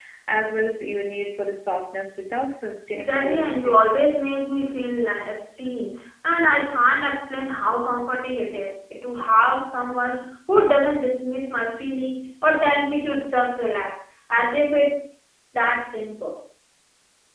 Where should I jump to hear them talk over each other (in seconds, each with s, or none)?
2.9 s